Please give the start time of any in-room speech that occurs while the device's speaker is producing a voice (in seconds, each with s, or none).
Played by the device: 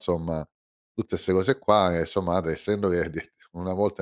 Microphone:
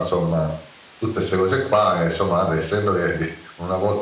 none